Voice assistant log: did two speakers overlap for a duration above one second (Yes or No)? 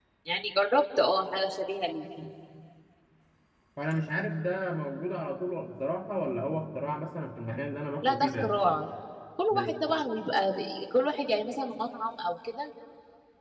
No